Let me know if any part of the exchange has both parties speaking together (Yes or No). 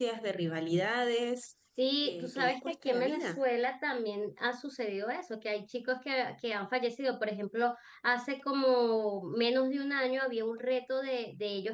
Yes